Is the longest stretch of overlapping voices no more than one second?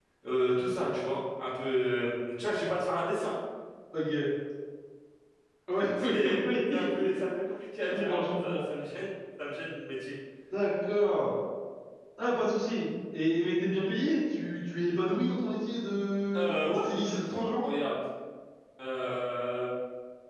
No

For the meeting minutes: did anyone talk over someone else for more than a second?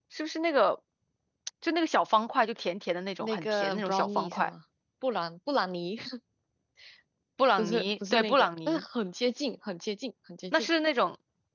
Yes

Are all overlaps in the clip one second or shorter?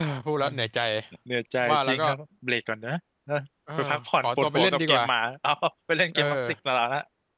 No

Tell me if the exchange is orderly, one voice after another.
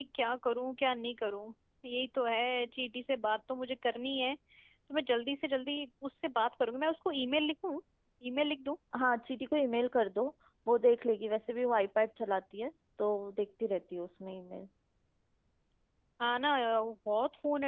Yes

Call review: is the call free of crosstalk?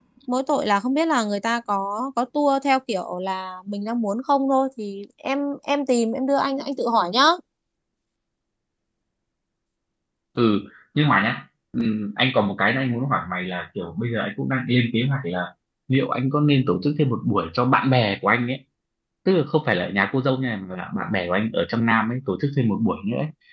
Yes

